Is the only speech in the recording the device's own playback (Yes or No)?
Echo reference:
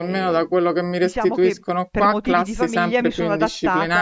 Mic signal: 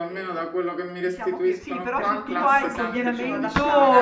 No